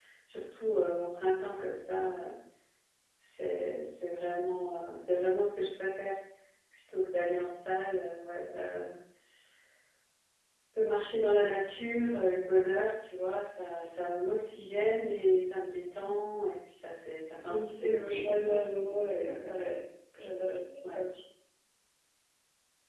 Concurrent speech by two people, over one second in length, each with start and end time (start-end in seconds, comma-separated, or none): 17.4-19.4